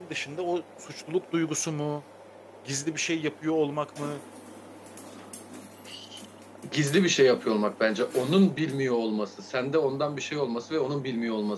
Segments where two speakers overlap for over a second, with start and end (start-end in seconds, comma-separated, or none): none